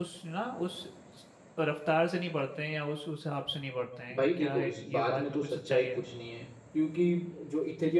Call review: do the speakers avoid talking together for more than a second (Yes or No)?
No